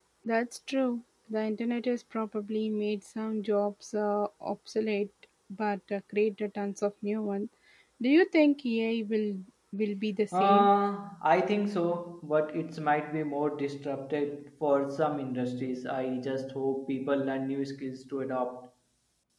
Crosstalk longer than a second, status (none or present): none